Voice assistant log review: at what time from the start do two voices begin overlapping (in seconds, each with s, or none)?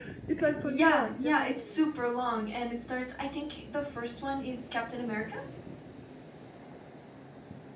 0.6 s